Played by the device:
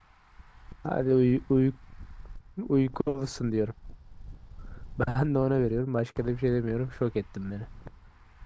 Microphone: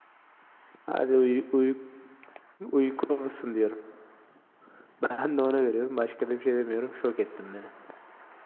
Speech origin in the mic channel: echo only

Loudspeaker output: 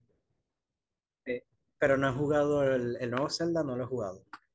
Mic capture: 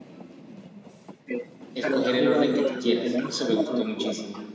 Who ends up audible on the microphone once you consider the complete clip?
both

